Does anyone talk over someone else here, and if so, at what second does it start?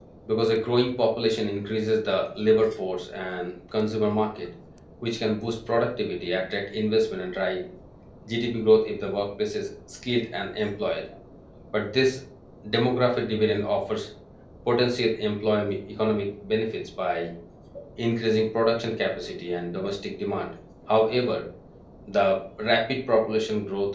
none

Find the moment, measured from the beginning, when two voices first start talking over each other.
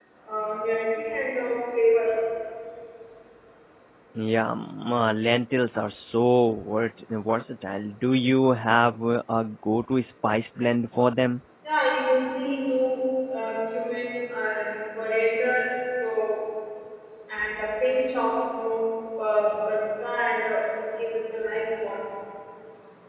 none

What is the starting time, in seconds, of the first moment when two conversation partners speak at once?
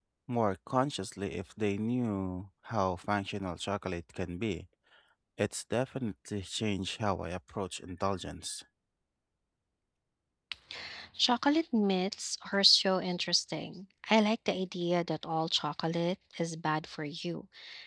none

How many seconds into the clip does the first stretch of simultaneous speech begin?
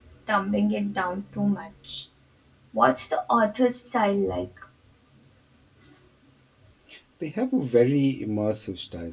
none

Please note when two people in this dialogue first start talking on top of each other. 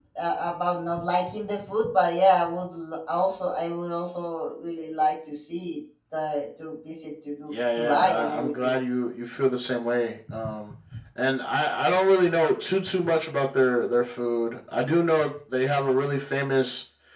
7.5 s

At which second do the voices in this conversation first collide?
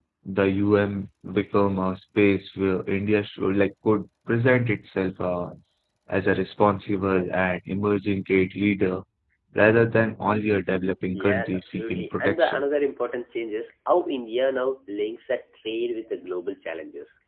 11.1 s

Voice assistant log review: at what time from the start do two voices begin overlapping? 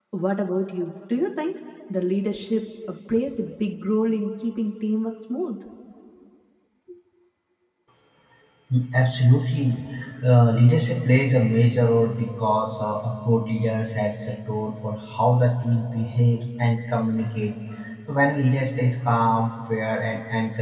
none

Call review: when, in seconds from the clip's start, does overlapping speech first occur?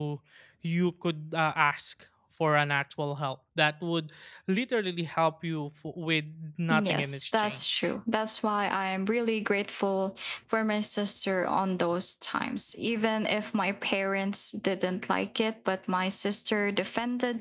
6.7 s

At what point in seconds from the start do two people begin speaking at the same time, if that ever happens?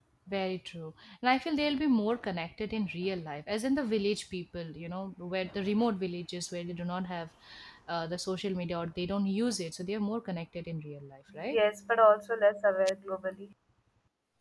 none

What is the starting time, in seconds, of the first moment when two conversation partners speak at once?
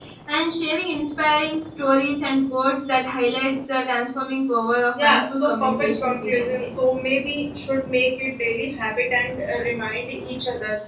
5.0 s

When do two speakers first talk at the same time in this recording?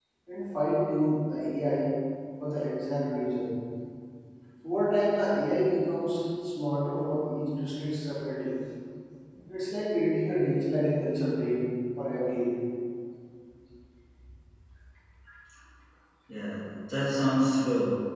none

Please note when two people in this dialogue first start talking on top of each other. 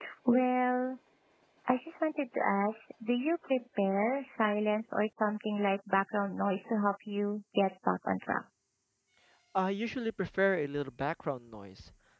none

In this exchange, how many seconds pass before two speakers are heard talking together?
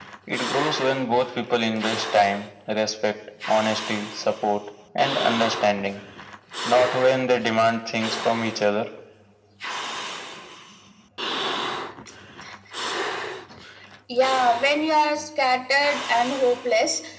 none

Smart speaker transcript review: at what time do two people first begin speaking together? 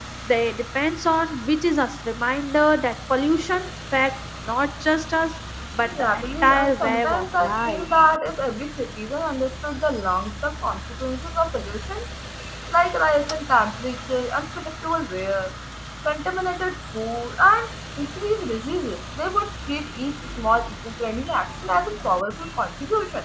5.8 s

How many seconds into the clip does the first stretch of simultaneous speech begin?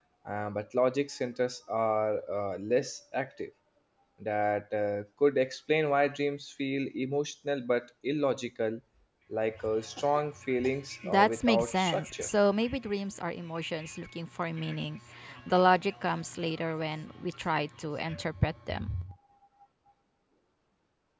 11.0 s

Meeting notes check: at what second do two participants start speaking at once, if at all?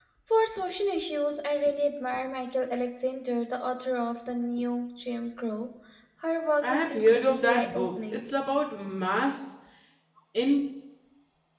6.6 s

